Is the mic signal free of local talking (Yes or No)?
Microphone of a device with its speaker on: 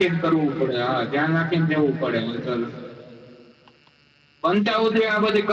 Yes